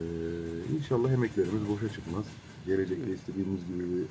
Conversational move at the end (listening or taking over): listening